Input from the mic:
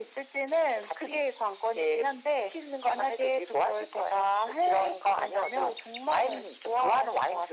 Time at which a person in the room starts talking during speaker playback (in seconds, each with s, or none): none